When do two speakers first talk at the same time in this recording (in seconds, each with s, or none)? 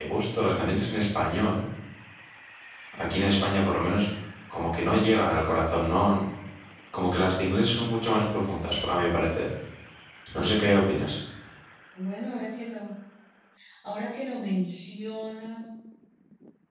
none